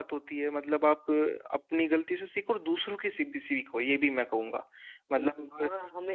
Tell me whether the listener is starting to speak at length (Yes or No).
Yes